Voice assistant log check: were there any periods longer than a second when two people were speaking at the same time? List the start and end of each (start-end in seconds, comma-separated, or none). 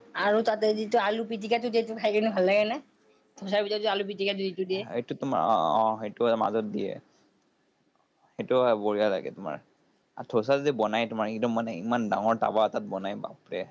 none